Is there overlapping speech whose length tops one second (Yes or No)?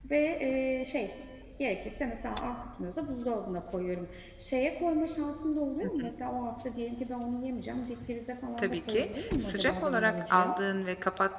Yes